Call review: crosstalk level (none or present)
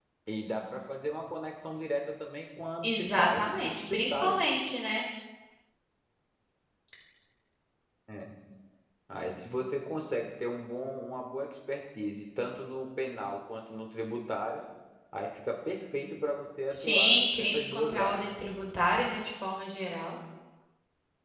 present